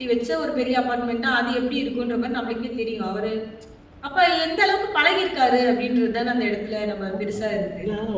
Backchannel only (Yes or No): No